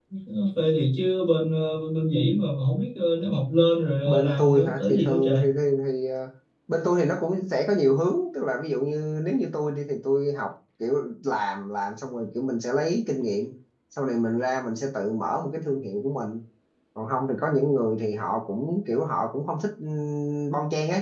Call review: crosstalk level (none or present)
present